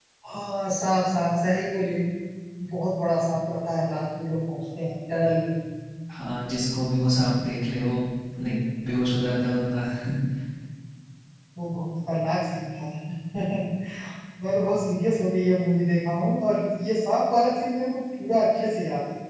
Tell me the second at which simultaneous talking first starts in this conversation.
none

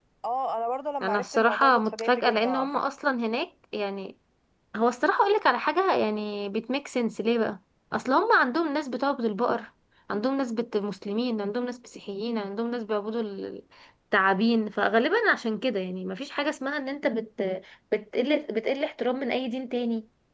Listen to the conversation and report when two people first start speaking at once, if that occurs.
1.0 s

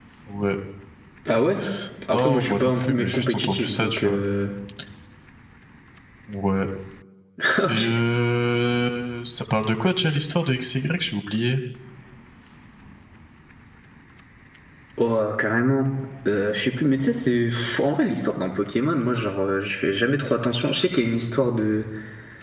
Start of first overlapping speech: 2.1 s

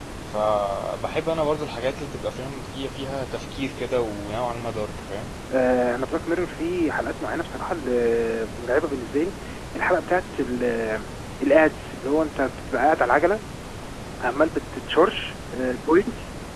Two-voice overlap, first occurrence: none

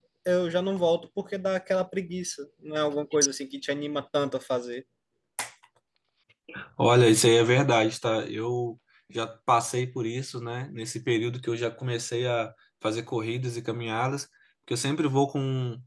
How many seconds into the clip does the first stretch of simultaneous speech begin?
none

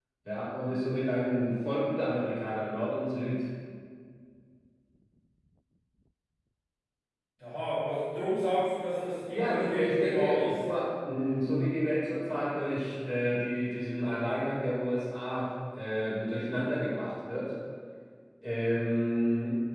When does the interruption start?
9.3 s

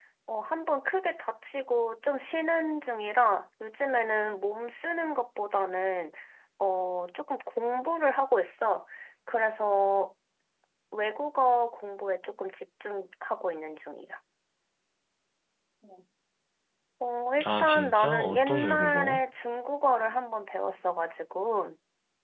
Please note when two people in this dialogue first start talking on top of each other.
17.6 s

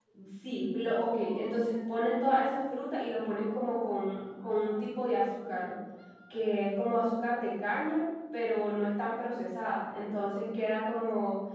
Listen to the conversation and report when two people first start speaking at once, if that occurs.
none

